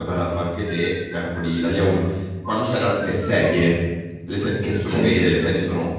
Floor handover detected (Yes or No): No